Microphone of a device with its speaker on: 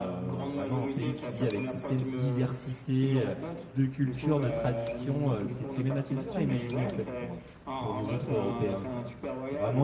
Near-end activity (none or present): present